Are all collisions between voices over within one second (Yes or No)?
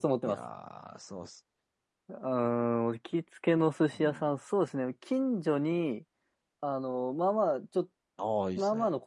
Yes